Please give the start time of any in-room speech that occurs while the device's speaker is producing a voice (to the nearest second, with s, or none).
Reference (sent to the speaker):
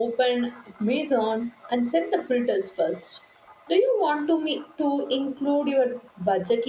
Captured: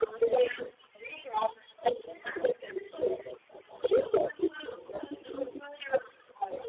none